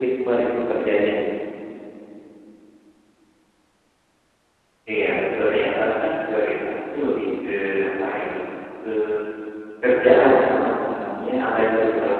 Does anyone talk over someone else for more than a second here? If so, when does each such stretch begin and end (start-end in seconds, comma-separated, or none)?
none